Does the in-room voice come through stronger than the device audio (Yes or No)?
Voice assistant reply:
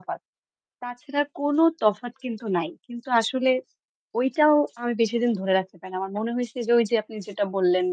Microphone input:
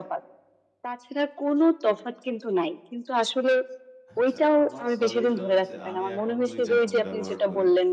No